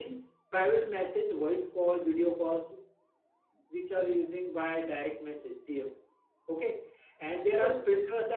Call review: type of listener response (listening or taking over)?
listening